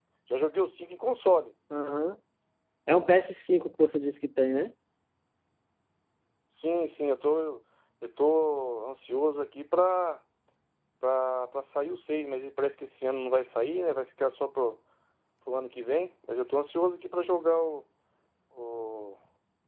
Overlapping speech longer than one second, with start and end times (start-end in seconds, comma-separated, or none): none